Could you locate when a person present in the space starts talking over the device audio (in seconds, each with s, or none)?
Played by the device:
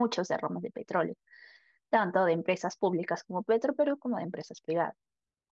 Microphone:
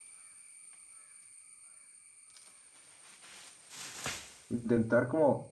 4.5 s